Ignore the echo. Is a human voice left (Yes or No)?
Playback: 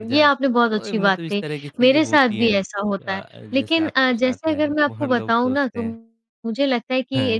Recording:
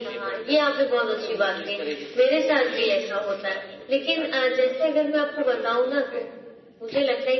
No